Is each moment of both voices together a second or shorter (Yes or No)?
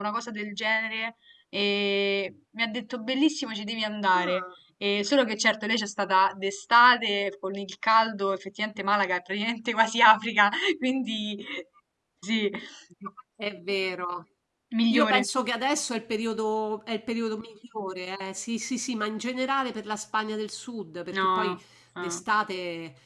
Yes